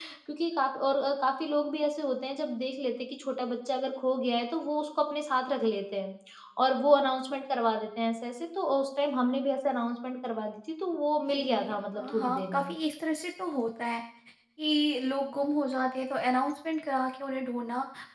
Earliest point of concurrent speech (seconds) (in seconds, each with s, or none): 11.3 s